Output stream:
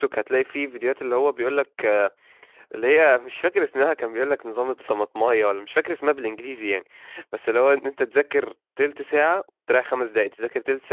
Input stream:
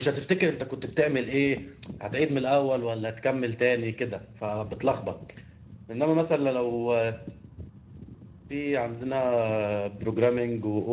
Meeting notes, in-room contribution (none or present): present